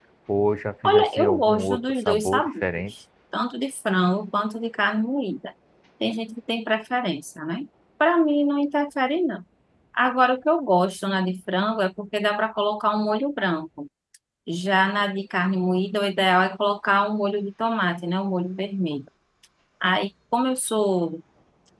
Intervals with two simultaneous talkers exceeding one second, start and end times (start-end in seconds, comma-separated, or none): 0.8-2.6